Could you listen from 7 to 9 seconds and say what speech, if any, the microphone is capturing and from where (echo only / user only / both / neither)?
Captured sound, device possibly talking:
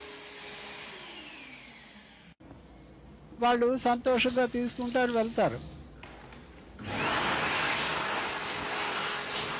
neither